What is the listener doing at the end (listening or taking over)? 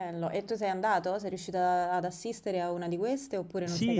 taking over